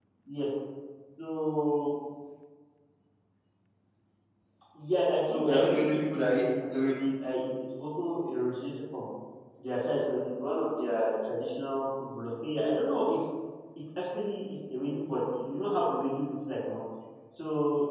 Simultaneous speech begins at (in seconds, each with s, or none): 5.3 s